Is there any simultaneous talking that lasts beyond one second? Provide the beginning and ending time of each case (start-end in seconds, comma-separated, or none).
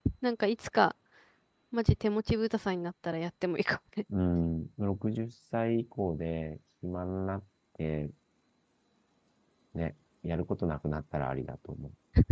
none